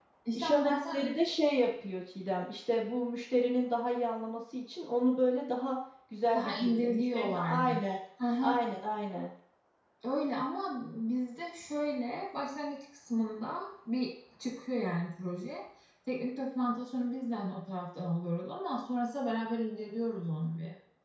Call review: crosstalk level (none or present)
present